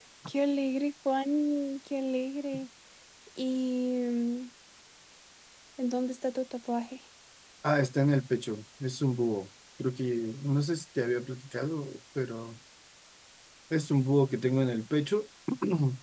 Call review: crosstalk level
none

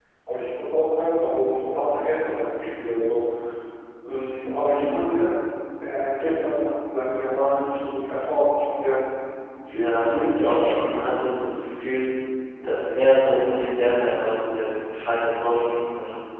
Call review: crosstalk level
present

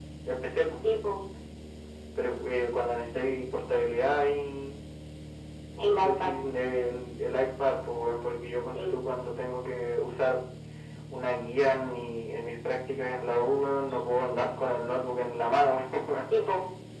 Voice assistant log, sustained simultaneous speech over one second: none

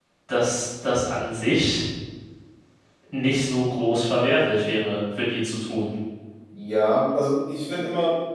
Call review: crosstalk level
none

